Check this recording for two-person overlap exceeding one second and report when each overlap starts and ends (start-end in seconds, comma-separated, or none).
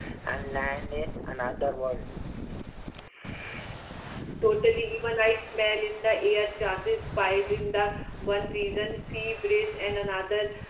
none